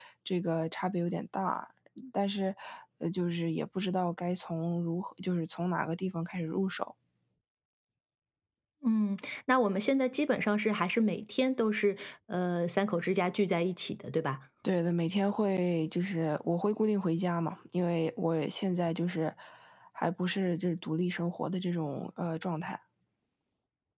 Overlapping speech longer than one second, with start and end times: none

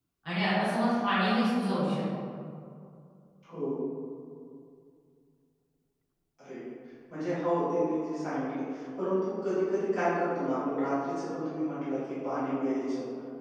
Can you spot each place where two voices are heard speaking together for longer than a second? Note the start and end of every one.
none

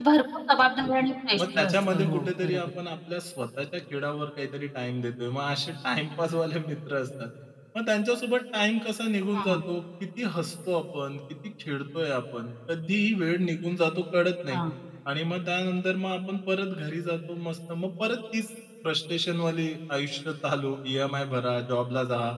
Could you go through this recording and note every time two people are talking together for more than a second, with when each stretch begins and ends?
1.4-2.7

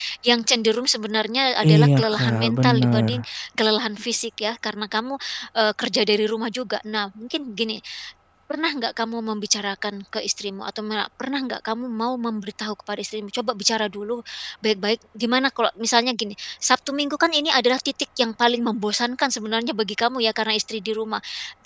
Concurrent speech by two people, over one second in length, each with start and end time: 1.6-3.2

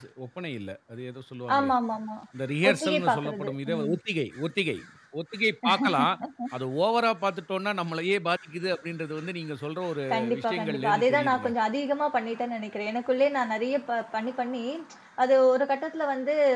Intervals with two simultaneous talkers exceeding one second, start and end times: 2.7-3.9, 10.1-11.5

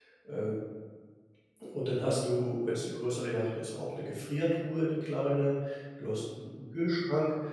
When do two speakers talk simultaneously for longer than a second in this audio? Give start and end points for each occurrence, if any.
none

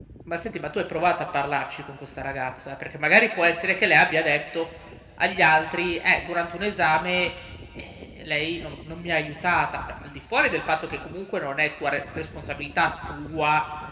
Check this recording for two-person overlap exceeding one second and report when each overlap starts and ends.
none

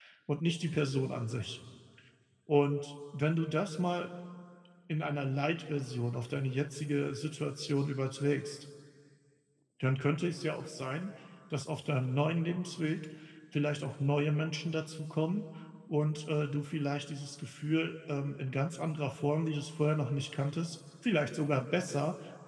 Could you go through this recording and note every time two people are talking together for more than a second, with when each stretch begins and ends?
none

